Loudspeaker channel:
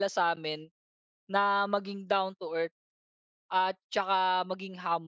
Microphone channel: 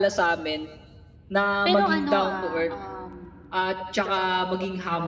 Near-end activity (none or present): present